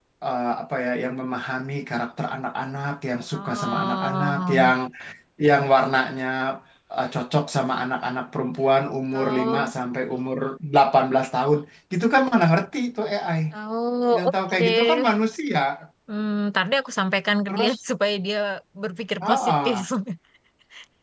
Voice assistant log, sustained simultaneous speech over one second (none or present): present